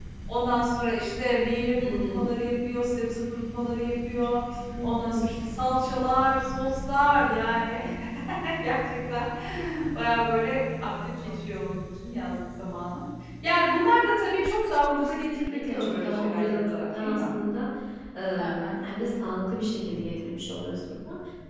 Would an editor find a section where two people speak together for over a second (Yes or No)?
Yes